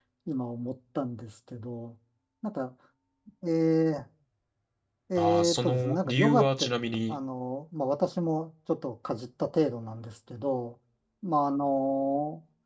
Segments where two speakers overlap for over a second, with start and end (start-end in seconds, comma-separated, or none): 5.2-6.7